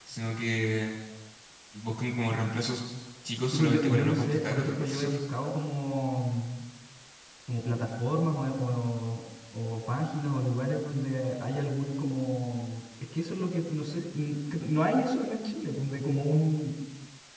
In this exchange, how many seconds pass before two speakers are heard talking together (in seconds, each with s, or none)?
3.5 s